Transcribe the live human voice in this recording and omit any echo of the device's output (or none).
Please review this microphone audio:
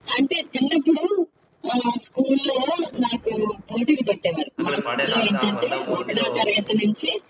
అక్కడ పాడారు. అంత ఆ 100 మందిలో